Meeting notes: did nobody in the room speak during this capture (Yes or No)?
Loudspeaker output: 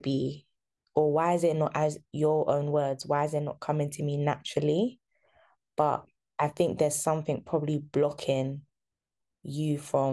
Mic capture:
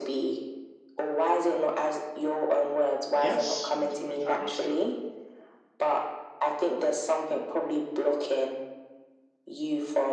No